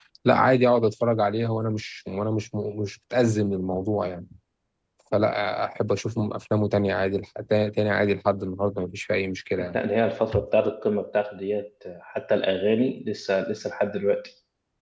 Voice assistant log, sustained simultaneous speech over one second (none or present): none